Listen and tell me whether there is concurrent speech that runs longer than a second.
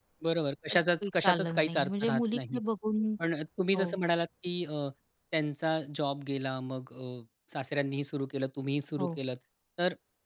Yes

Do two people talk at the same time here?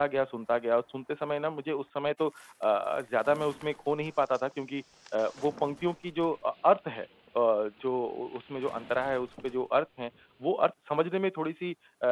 No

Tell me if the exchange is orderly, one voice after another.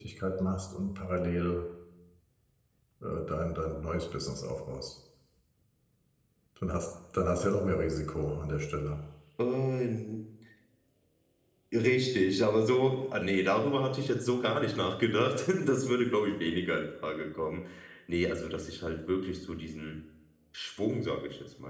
Yes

